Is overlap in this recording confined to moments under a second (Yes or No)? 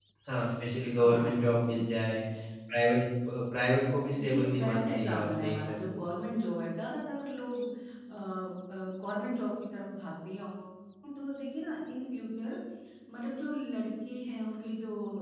No